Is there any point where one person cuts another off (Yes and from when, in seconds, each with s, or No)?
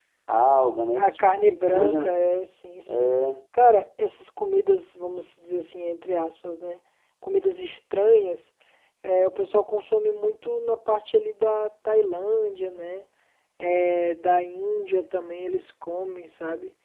Yes, from 0.9 s